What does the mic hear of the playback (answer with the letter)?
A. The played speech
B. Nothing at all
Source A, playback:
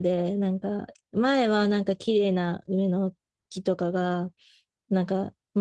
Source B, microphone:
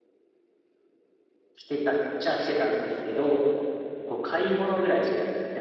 B